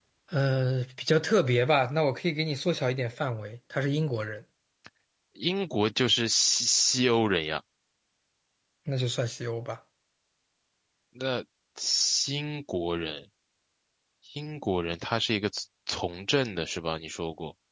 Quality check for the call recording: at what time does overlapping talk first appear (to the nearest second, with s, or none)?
none